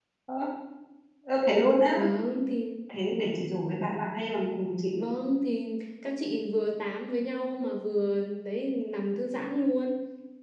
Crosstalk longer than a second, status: none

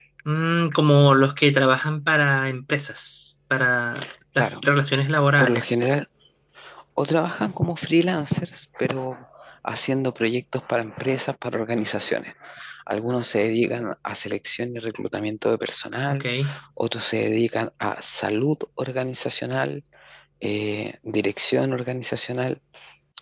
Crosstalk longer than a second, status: none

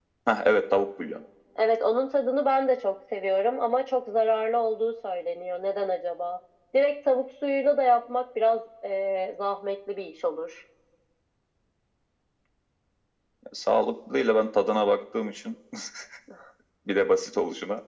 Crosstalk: none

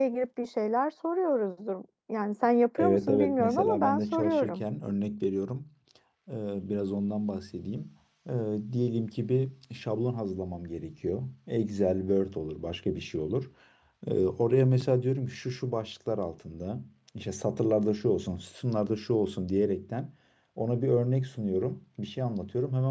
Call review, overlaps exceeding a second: present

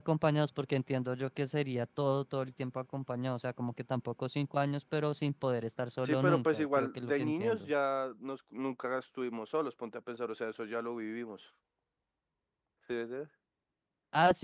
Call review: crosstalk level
present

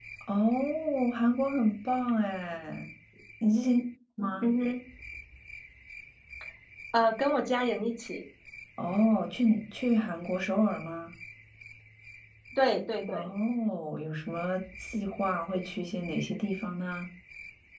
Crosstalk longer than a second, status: none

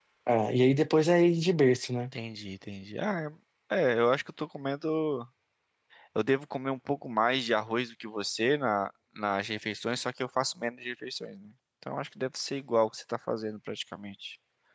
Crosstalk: none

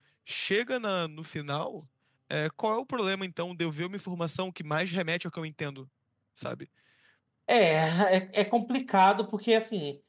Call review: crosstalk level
none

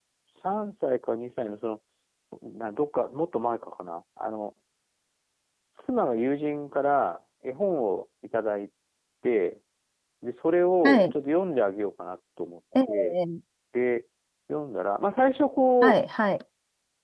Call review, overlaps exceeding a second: none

